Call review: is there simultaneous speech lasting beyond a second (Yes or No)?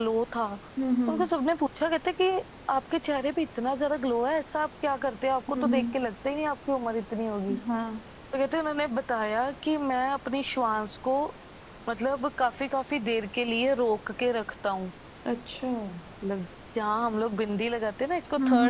No